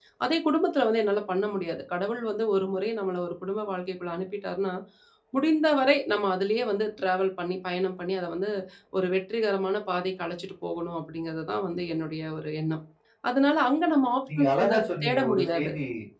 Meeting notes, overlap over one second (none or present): present